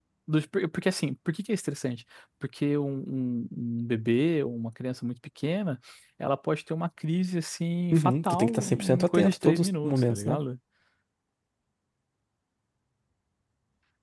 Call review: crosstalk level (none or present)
present